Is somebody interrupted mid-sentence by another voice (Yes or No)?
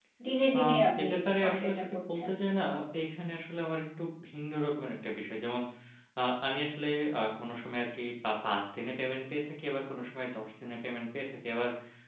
Yes